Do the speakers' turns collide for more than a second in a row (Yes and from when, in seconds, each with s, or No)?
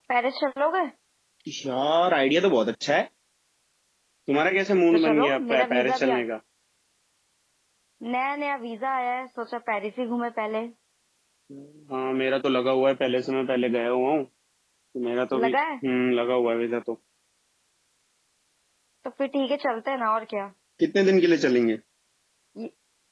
Yes, from 4.9 s